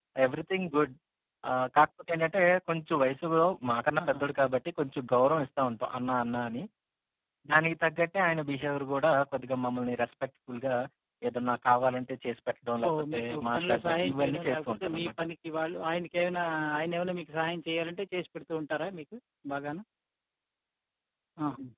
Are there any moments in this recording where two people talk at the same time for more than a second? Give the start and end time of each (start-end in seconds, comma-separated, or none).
12.9-15.2